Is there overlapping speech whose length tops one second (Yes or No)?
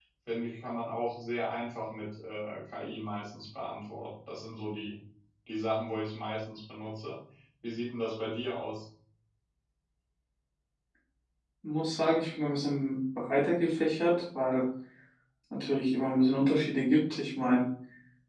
No